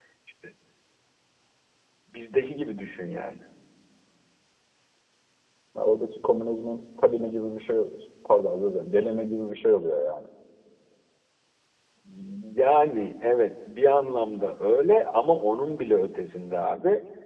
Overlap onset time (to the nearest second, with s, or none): none